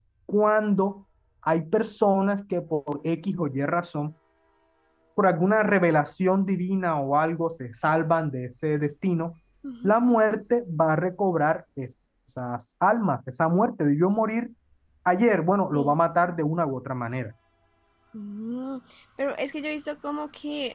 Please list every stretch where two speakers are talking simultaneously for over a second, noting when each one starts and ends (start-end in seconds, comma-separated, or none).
none